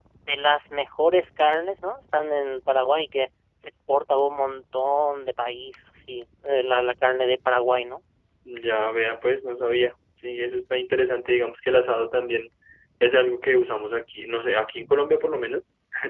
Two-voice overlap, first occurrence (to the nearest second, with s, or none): none